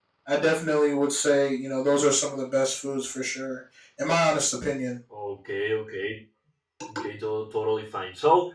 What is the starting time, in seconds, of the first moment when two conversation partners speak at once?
none

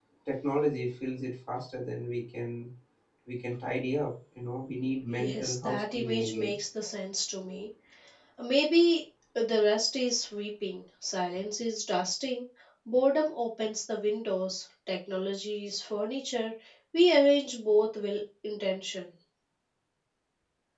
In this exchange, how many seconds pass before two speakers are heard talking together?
5.1 s

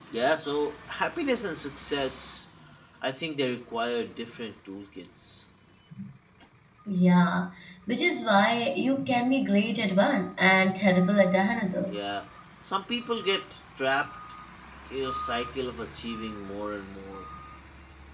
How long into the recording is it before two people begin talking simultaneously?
none

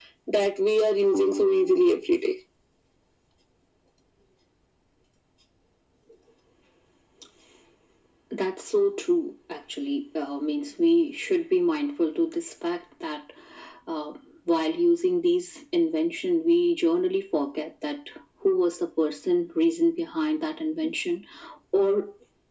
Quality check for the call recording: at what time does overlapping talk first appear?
none

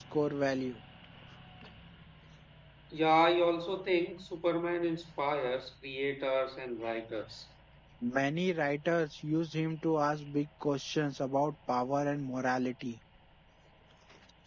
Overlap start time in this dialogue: none

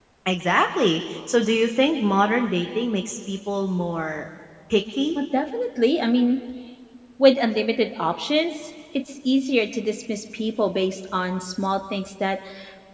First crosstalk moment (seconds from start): none

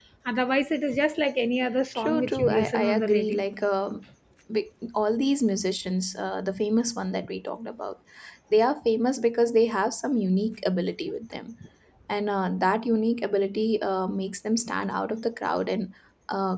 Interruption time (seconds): 1.9 s

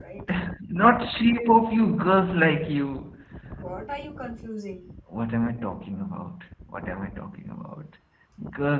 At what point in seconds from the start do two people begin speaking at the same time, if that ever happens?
none

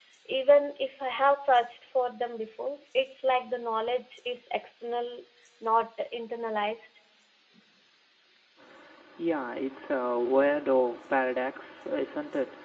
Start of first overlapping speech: none

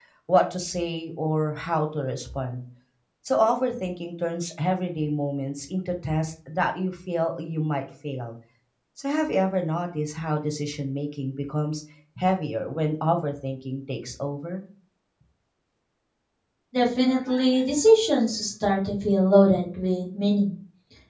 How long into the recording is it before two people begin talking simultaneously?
none

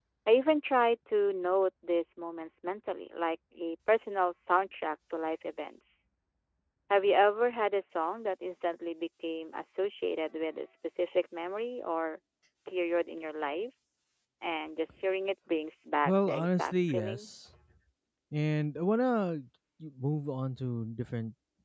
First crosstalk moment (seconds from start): 16.1 s

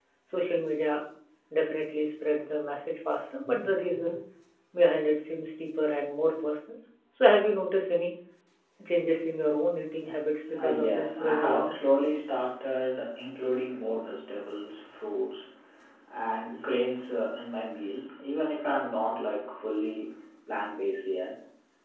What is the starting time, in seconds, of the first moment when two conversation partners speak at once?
10.5 s

